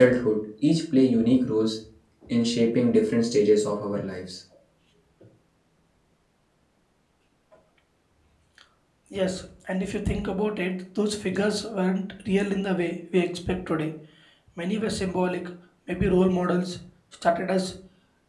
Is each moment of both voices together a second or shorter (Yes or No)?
Yes